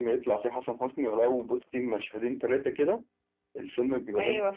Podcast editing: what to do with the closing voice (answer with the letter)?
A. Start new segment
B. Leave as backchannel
B